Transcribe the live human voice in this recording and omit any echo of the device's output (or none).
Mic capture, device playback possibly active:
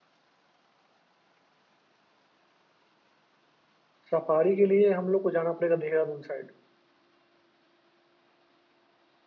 सफारी के लिए हम लोग को जाना पड़ेगा देहरादून साइड